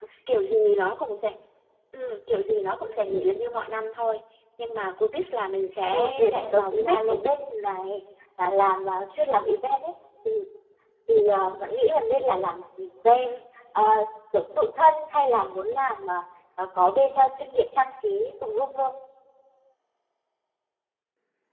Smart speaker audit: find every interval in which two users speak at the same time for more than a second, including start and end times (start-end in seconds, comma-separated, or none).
5.9-7.2